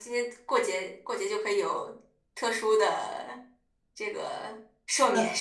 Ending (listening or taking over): taking over